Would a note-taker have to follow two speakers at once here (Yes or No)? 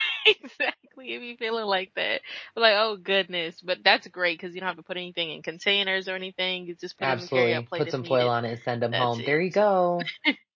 Yes